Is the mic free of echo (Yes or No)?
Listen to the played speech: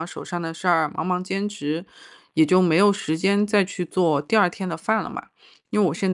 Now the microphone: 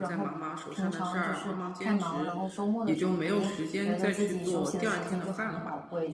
No